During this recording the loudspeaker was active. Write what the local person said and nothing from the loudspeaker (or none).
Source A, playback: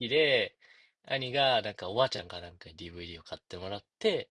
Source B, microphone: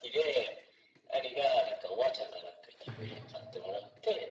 はいはい。